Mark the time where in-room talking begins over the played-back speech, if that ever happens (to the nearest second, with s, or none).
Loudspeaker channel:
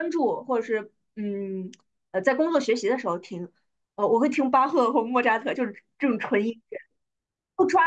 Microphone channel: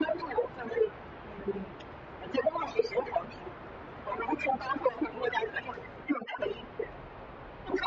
none